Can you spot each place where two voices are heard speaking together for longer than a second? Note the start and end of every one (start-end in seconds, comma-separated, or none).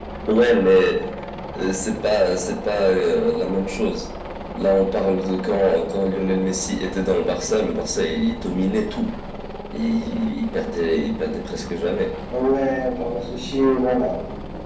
none